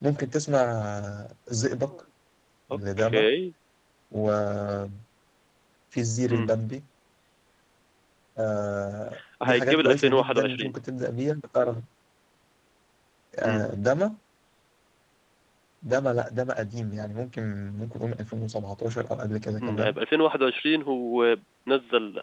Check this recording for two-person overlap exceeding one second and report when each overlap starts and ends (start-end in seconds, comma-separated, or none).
9.4-10.7